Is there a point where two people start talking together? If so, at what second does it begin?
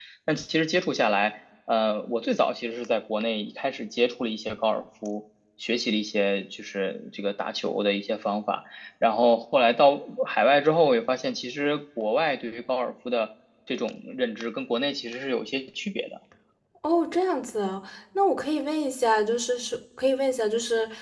none

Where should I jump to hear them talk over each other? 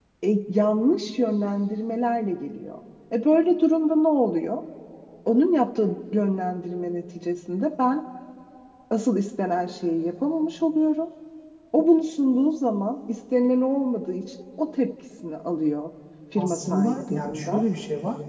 16 s

